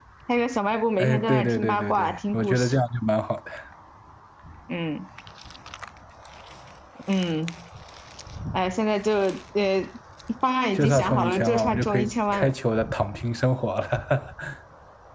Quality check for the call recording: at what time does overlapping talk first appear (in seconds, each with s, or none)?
1.0 s